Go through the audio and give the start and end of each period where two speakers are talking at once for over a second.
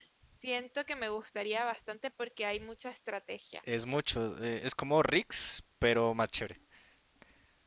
none

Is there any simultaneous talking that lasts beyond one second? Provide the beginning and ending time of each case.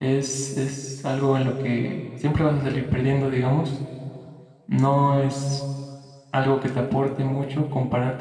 none

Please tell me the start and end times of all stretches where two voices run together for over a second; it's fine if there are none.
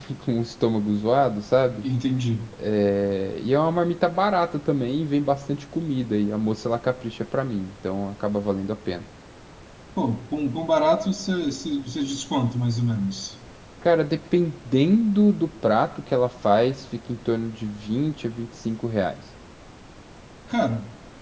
none

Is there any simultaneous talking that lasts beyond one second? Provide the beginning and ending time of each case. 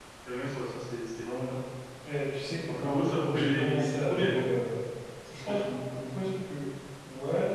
2.8-4.4

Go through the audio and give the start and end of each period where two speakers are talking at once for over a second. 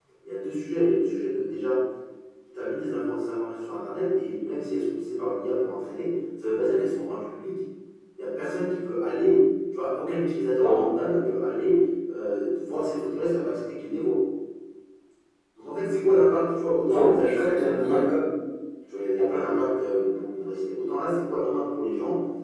16.9-18.2

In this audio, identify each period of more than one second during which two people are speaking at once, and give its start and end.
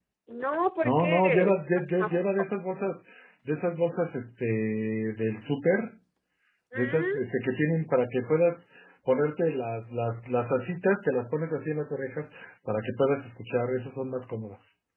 0.8-2.2

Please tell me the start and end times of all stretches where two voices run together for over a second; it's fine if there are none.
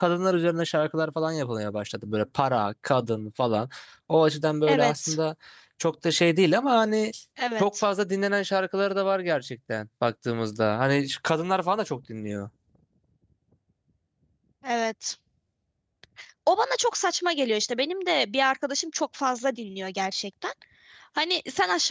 none

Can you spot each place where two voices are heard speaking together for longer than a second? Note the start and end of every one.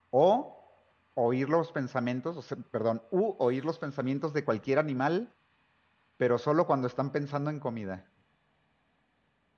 none

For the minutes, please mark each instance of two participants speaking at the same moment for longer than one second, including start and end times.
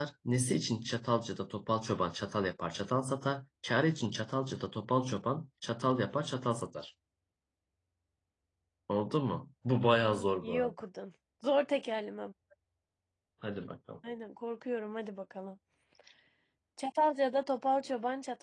none

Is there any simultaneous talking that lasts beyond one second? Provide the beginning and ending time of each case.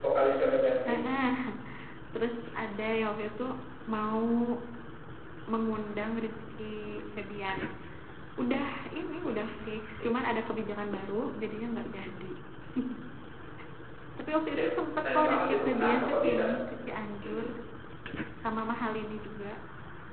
15.0-16.4

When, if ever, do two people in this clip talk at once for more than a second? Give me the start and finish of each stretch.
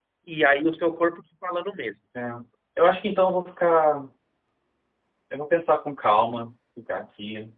none

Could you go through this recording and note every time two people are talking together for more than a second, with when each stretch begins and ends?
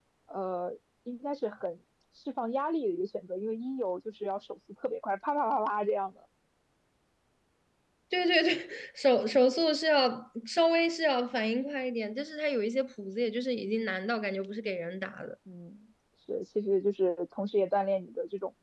none

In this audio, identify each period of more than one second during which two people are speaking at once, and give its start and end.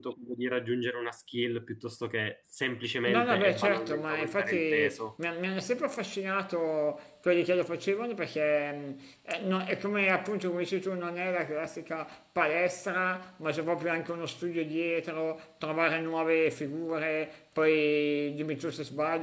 3.1-5.0

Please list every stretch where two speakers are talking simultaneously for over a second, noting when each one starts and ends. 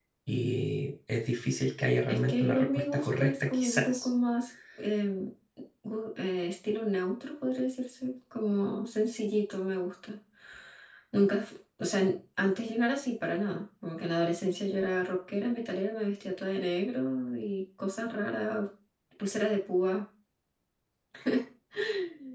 2.1-4.1

